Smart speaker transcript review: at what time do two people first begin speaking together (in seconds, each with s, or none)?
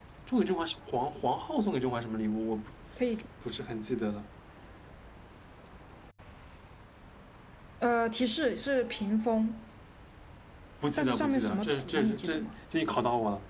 11.0 s